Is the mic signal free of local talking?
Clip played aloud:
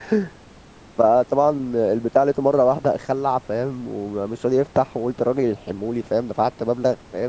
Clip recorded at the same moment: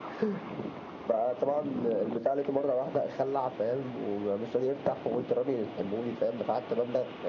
Yes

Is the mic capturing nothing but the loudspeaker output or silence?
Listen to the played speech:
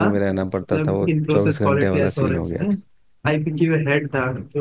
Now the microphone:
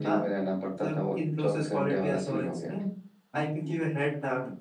Yes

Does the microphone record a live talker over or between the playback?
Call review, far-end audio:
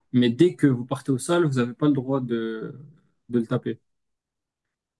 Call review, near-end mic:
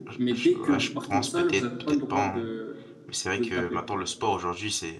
Yes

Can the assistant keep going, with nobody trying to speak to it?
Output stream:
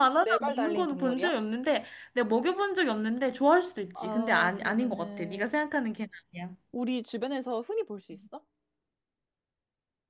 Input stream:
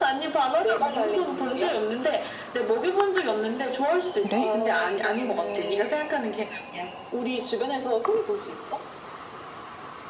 No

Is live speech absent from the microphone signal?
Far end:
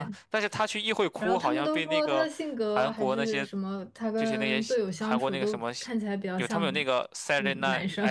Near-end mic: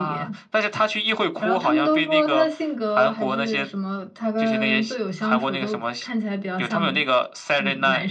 Yes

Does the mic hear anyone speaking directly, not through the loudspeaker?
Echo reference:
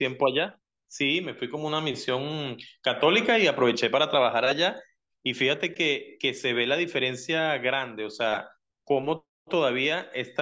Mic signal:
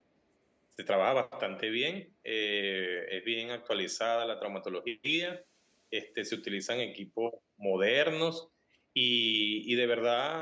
Yes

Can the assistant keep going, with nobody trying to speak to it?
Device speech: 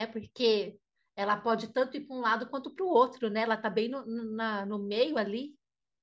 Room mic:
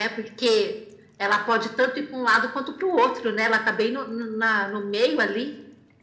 Yes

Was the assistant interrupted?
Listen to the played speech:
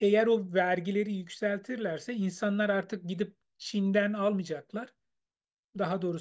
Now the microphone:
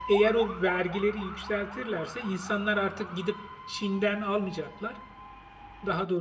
No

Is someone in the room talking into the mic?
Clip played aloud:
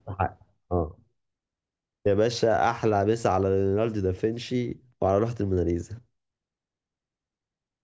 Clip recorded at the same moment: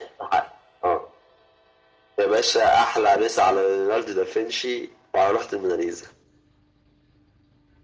No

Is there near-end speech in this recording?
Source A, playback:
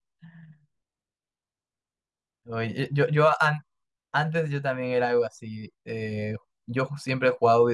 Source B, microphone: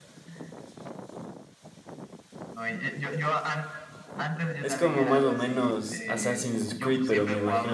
Yes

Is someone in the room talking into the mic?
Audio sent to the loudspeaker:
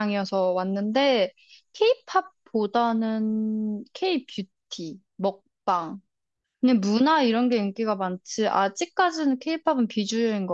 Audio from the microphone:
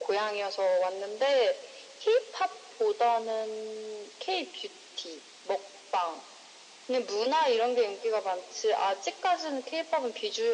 No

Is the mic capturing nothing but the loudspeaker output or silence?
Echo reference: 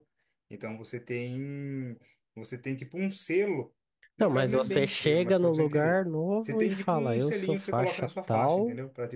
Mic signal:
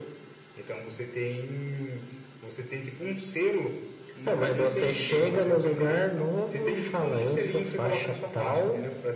No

